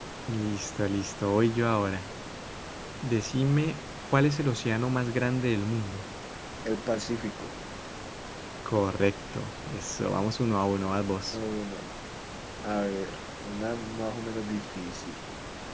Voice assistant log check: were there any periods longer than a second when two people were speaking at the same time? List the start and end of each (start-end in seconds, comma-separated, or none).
none